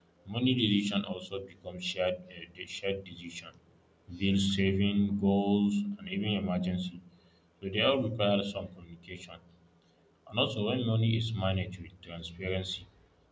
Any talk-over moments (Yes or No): No